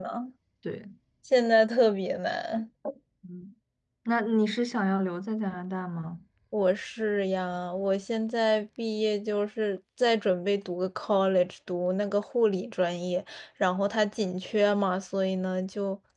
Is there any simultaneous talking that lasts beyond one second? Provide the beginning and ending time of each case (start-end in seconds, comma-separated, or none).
none